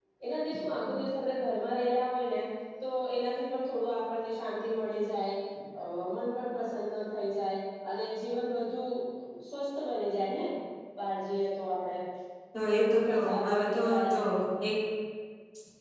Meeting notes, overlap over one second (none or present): present